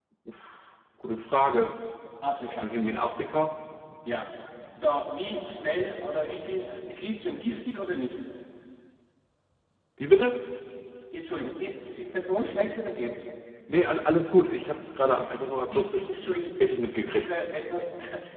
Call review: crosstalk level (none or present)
present